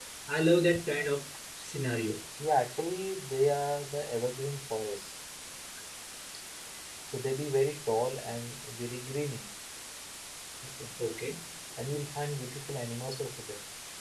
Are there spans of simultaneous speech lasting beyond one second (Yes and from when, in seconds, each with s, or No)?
No